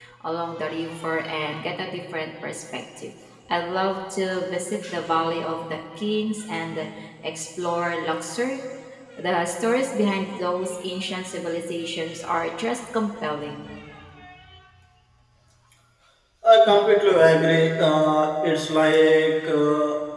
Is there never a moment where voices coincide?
Yes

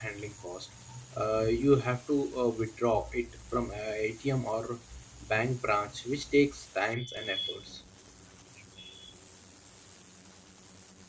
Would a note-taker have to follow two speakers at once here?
No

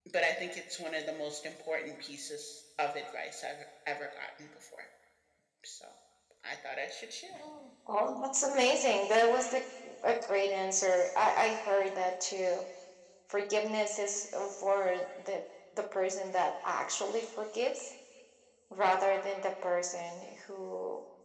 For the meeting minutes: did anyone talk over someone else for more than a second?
No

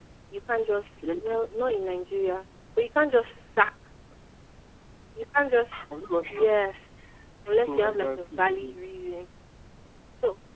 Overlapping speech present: Yes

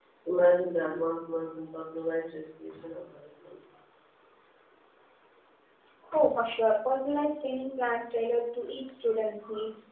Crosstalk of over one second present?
No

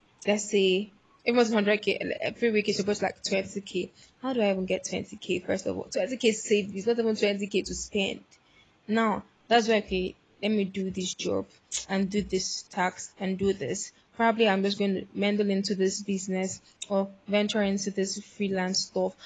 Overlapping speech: No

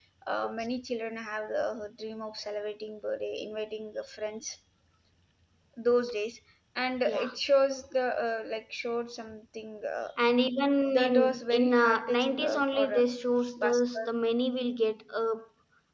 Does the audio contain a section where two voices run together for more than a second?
Yes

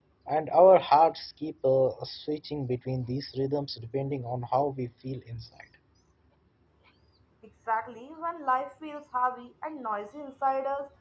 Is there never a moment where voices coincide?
Yes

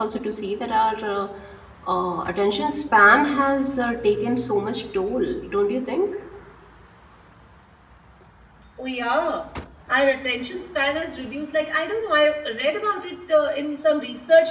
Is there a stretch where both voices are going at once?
No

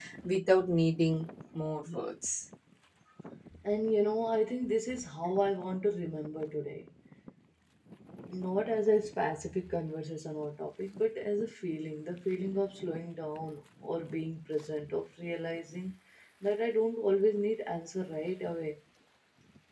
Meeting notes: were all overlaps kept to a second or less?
Yes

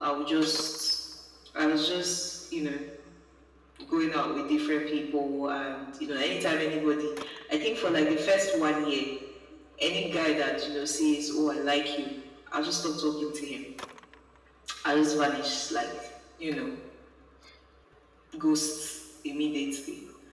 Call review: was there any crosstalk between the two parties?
No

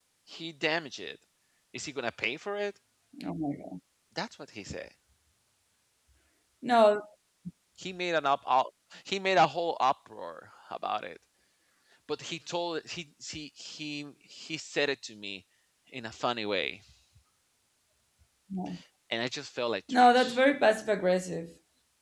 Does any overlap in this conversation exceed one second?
No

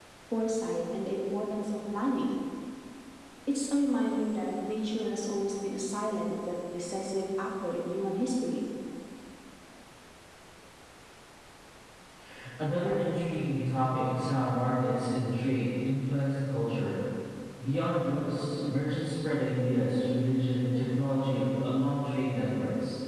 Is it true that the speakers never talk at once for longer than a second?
Yes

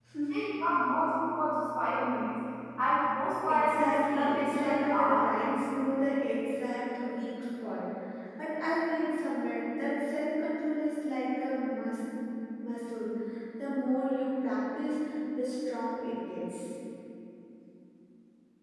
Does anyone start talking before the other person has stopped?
Yes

